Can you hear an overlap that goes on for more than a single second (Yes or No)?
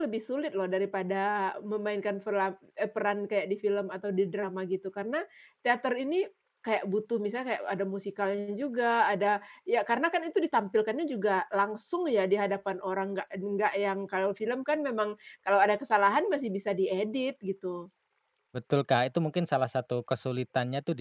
No